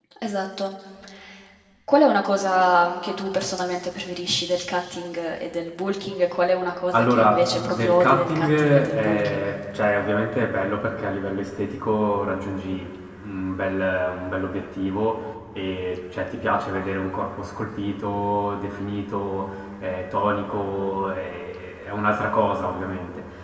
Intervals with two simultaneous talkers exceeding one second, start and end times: 6.9-9.5

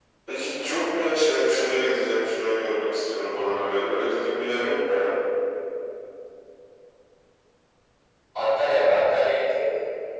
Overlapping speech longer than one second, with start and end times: none

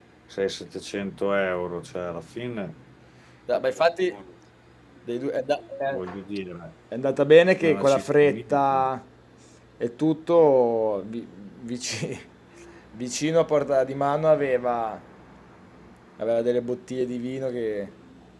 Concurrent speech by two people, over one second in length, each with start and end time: 7.6-8.9

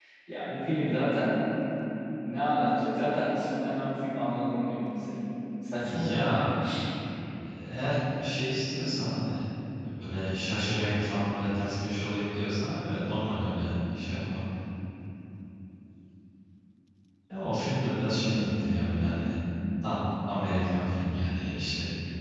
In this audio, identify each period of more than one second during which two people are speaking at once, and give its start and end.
none

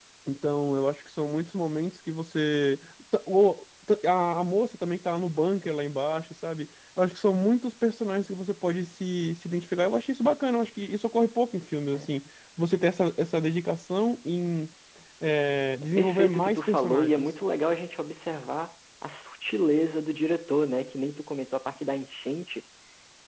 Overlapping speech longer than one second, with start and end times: 15.8-17.2

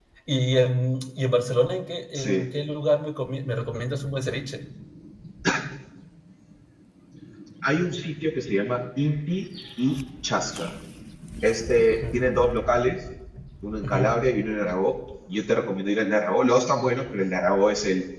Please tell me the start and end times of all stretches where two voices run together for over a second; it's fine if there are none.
none

